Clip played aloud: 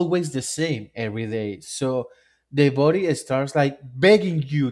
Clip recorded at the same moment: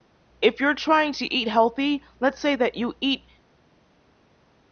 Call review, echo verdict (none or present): none